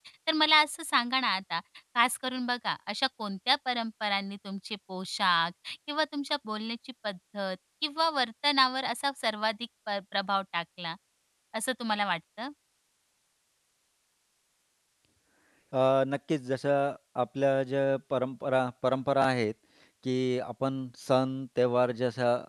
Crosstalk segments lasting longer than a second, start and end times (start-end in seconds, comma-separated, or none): none